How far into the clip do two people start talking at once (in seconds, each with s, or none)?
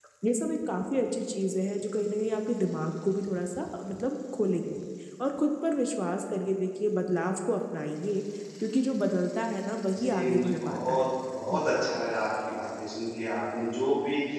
9.9 s